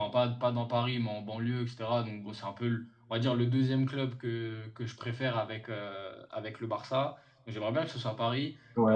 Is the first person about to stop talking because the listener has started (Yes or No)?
No